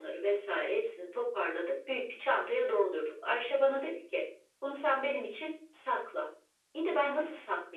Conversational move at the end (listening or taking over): listening